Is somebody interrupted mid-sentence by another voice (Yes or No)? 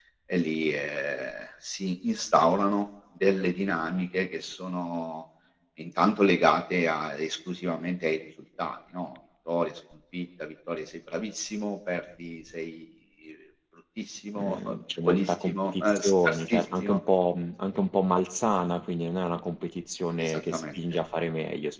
Yes